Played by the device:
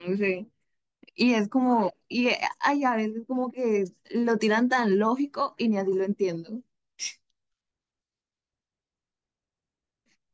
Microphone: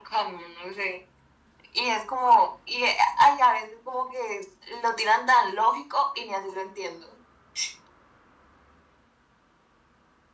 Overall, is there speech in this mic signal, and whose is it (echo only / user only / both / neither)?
echo only